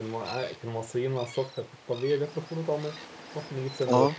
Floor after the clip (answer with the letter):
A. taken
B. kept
B